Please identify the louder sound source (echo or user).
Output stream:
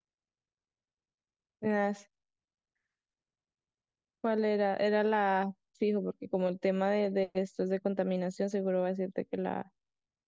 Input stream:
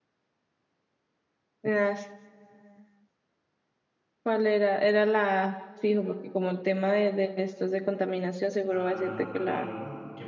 echo